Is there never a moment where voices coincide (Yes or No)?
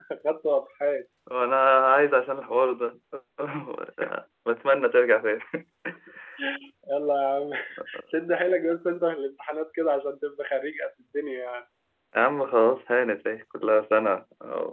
Yes